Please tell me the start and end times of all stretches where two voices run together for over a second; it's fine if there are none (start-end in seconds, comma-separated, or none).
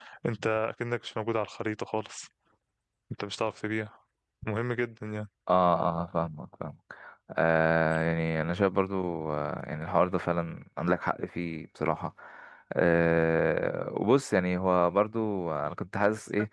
none